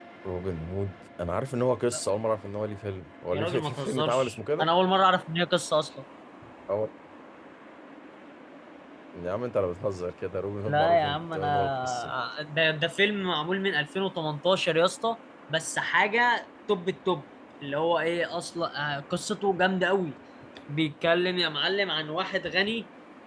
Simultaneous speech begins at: 3.3 s

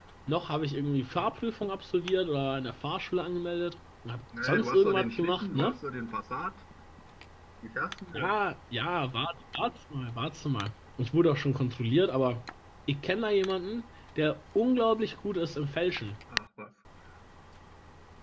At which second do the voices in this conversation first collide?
4.3 s

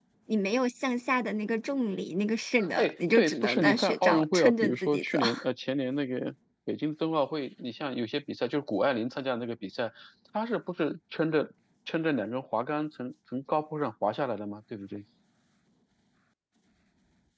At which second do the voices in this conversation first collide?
2.6 s

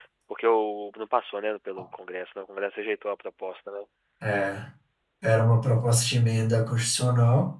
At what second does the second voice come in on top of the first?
none

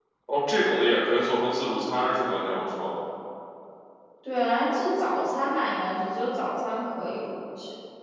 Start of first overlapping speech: none

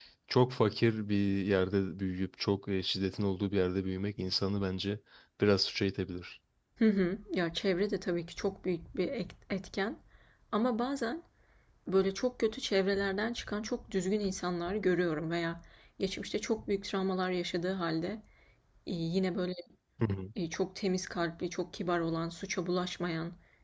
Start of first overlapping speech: none

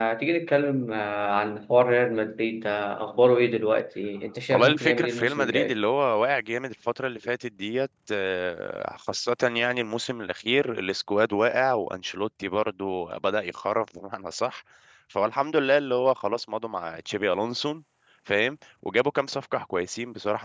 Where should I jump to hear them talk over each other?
4.5 s

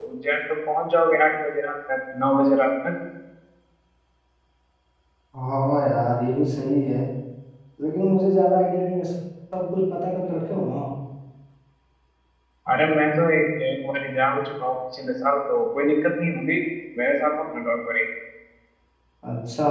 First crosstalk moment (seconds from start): none

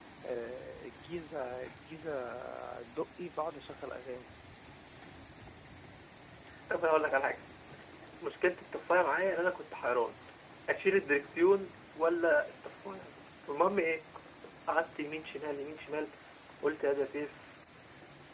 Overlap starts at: none

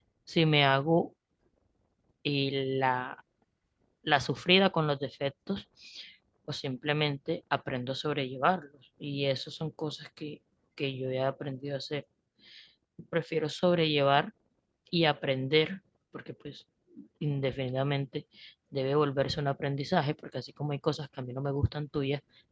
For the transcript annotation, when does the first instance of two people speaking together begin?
none

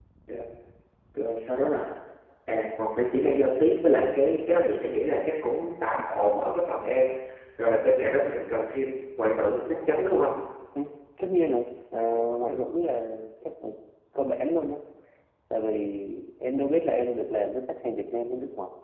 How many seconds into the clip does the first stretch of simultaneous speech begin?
none

